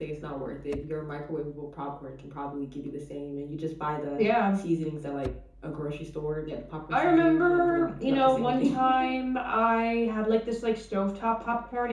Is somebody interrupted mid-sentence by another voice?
Yes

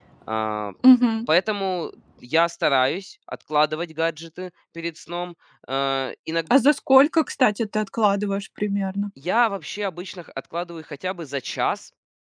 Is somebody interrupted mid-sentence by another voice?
No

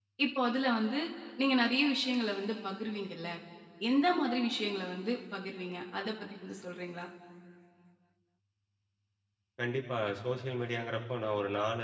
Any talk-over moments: No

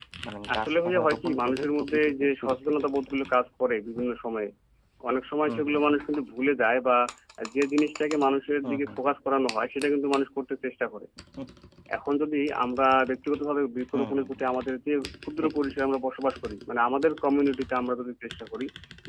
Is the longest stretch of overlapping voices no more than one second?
No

